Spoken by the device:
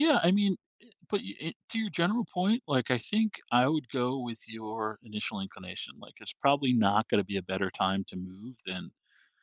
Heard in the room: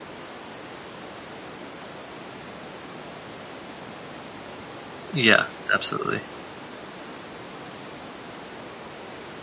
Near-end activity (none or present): present